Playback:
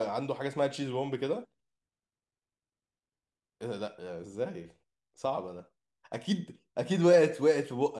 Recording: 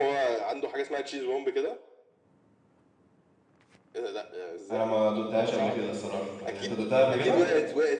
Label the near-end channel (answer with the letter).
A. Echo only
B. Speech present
B